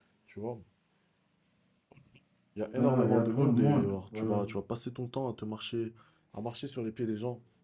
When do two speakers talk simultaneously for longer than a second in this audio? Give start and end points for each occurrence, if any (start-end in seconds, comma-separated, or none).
2.8-4.4